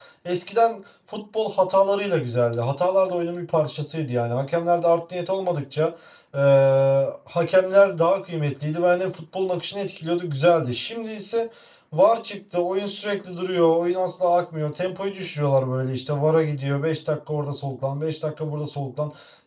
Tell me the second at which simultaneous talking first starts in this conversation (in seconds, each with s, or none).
none